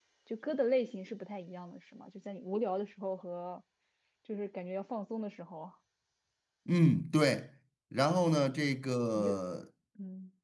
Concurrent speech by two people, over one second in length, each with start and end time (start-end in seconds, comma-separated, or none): none